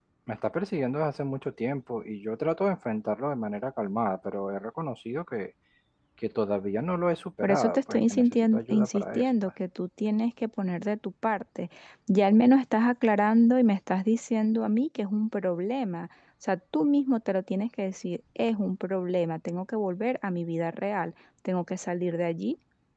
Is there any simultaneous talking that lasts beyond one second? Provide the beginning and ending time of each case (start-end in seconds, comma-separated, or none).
7.4-9.3